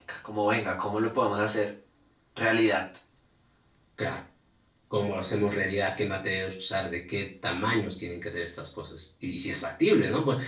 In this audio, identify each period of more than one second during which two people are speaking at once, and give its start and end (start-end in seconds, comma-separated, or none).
none